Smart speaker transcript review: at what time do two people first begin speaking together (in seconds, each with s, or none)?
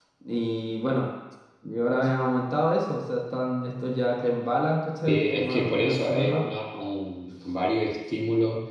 5.1 s